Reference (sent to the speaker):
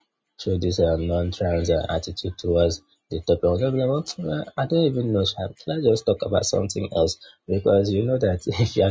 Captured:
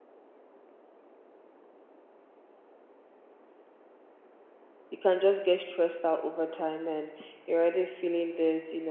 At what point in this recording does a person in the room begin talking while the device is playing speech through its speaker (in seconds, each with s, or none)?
4.9 s